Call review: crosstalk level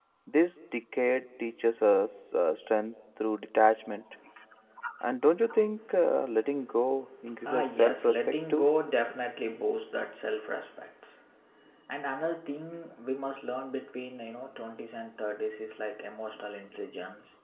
present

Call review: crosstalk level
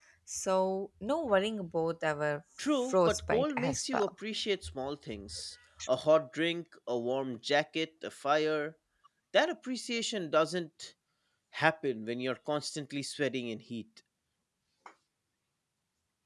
present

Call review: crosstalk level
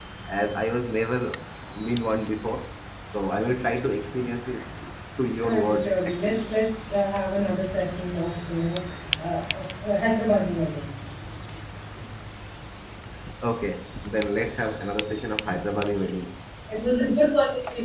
present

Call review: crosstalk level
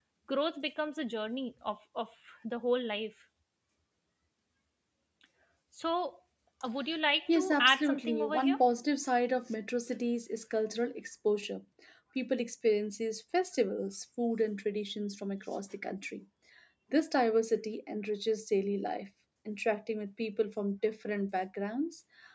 present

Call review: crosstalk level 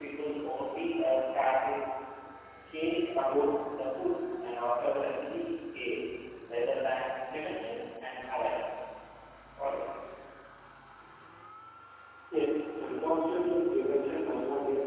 none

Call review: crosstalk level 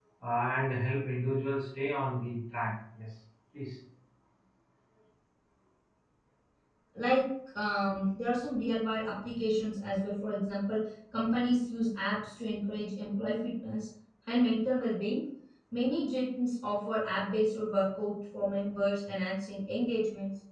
none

